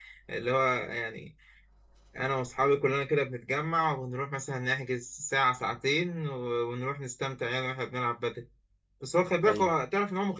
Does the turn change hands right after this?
No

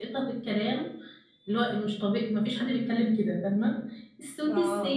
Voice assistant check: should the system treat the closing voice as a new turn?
No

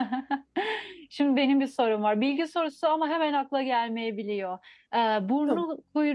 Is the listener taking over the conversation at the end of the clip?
No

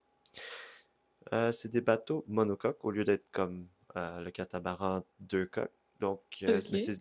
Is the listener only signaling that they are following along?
Yes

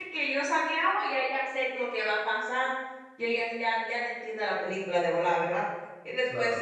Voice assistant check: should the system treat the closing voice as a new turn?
No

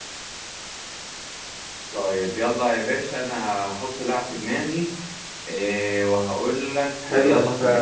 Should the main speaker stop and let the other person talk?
Yes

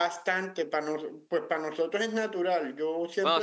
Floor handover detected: Yes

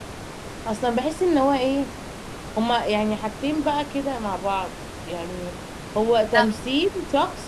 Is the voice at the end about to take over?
No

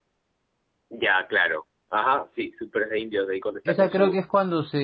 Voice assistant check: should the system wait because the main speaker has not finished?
No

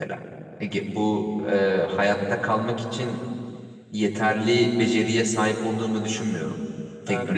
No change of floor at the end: No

